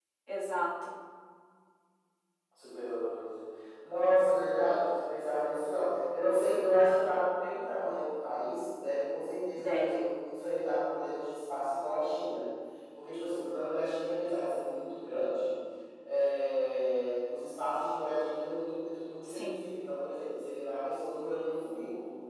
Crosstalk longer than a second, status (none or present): none